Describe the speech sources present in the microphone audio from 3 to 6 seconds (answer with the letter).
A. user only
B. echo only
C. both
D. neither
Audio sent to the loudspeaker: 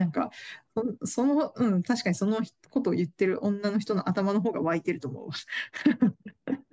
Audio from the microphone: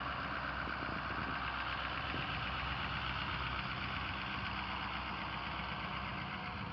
D